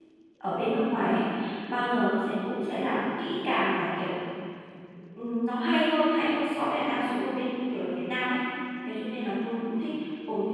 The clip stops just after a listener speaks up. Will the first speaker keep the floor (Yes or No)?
Yes